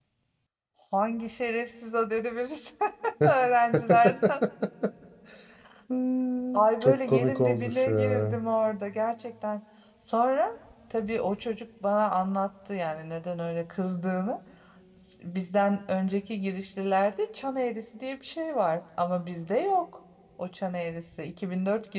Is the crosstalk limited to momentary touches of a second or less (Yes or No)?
No